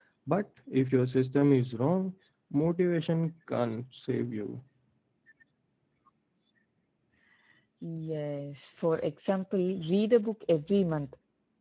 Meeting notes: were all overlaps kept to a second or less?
Yes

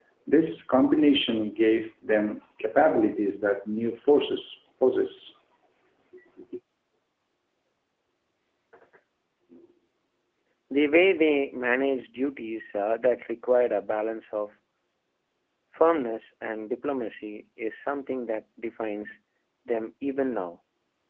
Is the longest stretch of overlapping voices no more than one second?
Yes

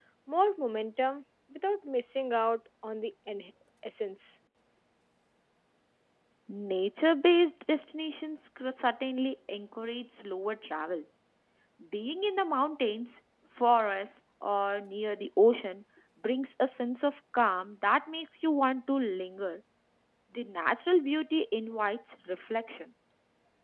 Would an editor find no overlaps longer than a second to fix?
Yes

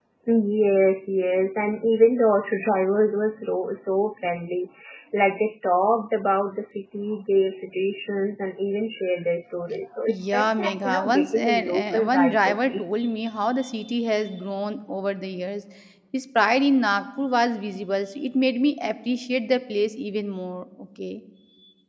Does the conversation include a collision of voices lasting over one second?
Yes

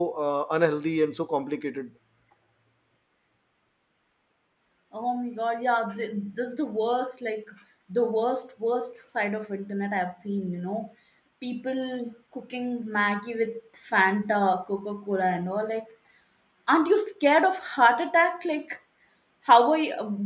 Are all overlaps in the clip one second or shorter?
Yes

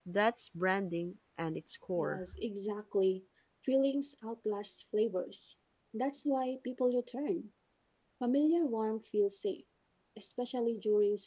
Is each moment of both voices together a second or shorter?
Yes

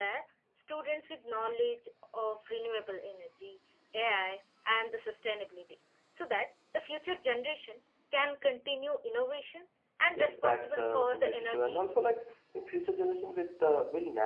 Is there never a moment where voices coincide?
No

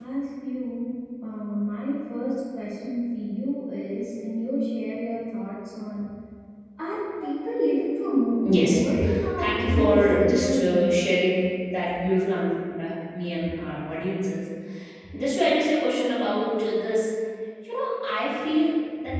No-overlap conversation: No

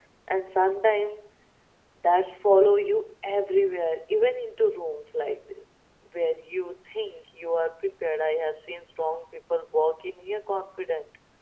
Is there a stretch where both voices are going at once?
No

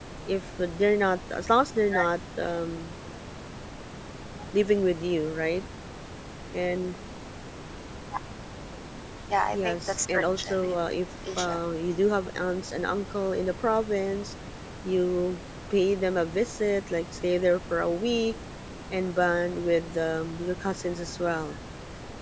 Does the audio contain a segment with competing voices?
Yes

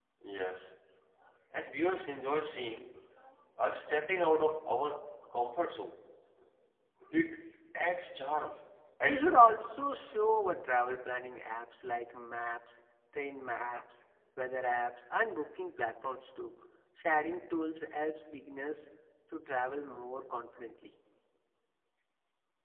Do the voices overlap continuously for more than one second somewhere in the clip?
No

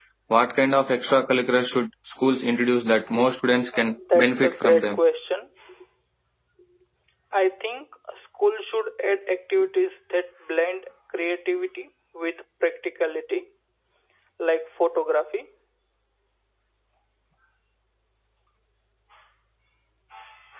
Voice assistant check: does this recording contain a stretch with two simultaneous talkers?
Yes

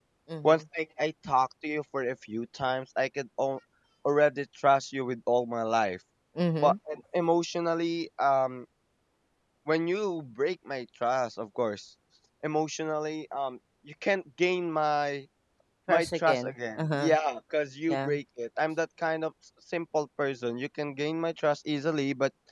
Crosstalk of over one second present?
Yes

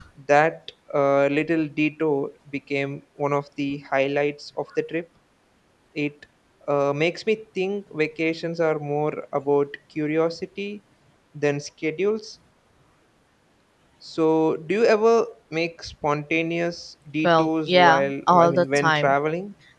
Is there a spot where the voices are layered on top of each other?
Yes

